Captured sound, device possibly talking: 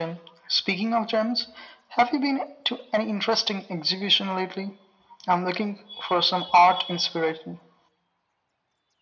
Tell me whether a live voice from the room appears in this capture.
No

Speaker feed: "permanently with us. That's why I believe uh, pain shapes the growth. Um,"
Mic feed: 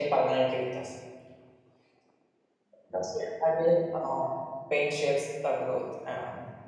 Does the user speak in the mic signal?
No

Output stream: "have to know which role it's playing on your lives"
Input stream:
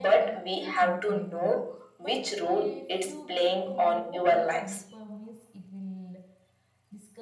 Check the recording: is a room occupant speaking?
Yes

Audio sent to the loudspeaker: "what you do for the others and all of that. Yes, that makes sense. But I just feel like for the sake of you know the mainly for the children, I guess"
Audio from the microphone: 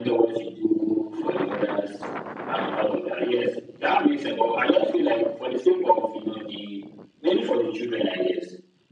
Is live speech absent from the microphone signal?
Yes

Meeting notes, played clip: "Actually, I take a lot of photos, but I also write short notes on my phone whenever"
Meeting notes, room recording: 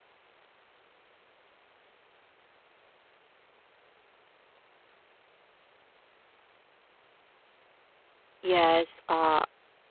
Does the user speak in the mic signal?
Yes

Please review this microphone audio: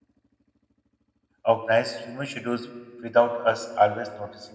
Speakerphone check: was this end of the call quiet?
No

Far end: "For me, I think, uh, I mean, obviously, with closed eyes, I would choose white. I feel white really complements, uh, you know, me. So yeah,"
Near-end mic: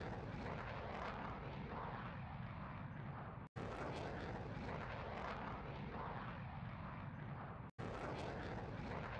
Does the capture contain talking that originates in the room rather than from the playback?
No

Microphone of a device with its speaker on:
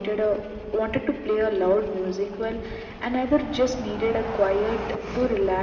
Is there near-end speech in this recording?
No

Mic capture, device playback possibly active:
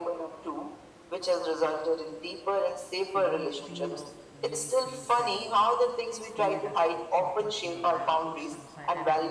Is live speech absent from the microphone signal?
No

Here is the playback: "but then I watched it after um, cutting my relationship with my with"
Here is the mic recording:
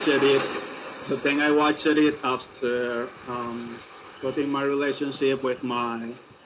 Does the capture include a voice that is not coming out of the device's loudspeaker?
No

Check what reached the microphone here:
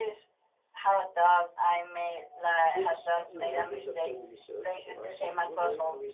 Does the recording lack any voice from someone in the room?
No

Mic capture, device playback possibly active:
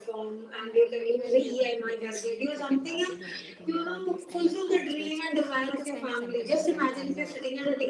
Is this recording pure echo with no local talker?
No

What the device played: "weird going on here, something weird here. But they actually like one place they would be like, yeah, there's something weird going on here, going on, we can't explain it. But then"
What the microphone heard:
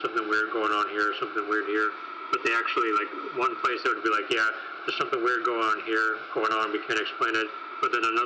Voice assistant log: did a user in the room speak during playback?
No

